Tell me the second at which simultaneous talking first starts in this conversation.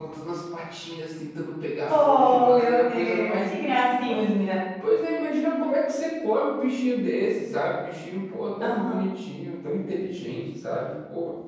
1.9 s

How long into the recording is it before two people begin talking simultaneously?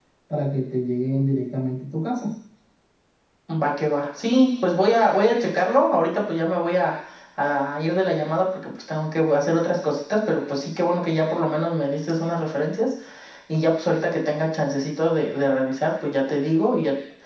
none

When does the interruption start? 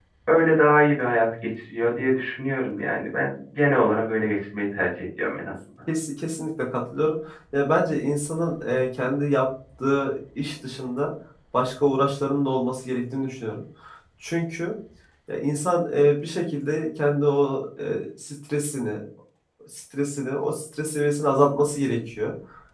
none

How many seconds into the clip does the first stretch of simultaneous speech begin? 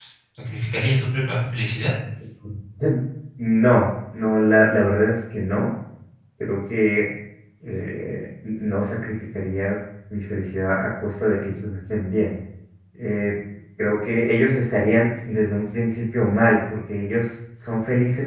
none

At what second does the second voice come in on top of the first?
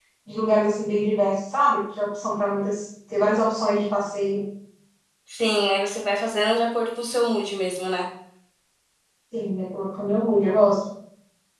none

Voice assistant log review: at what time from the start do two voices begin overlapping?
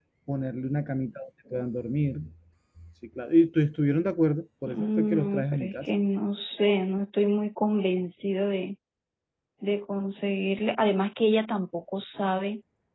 4.6 s

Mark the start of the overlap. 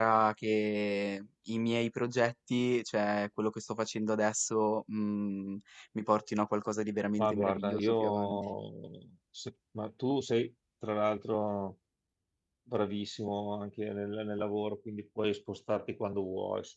7.2 s

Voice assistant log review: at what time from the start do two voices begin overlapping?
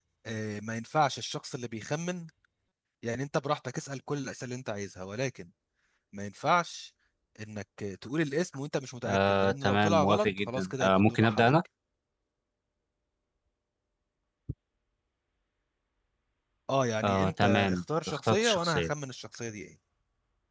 9.1 s

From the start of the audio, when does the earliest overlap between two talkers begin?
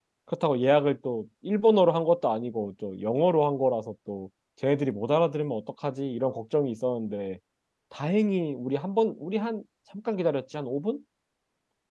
none

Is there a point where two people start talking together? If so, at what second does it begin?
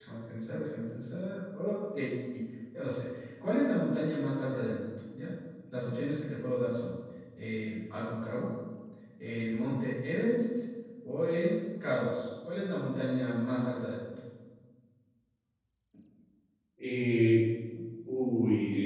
none

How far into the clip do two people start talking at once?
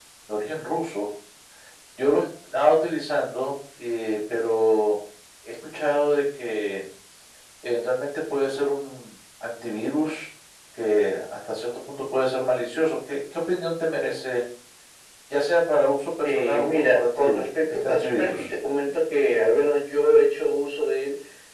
16.2 s

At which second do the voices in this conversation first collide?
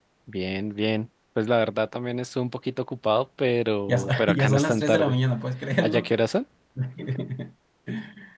3.9 s

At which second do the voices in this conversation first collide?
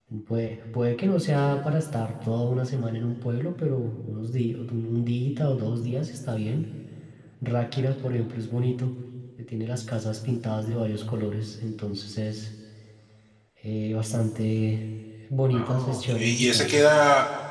15.5 s

